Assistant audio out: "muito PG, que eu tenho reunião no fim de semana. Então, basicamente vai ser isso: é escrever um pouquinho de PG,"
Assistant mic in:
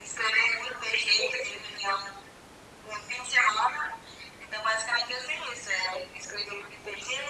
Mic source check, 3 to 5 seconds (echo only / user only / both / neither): echo only